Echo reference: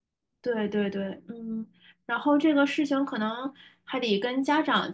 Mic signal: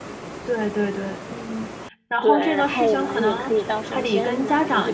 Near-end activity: present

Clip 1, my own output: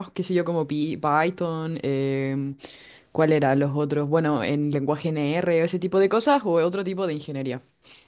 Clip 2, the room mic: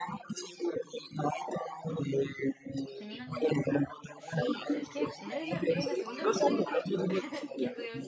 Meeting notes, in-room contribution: present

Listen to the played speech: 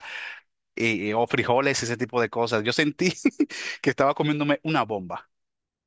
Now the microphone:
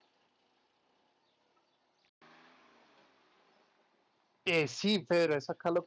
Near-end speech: present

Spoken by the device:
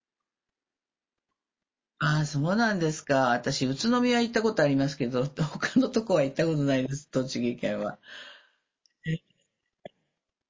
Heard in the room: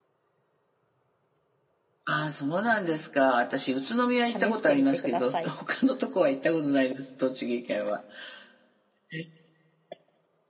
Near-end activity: present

